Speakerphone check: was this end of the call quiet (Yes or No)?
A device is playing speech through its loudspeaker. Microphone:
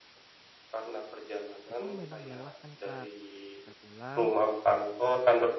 No